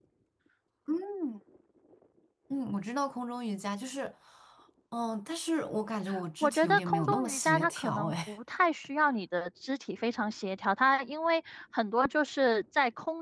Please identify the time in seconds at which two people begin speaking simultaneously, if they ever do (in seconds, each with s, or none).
6.4 s